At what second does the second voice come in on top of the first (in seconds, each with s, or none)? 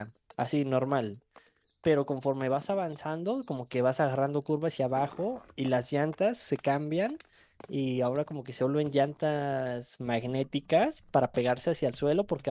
none